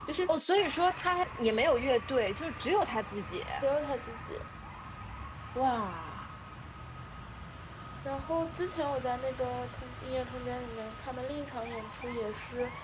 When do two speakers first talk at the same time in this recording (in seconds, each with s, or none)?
none